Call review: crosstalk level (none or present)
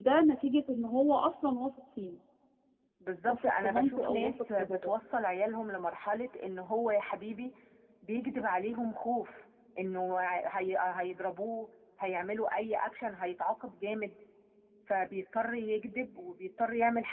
present